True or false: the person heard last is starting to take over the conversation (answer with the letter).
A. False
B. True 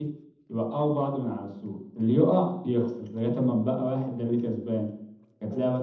A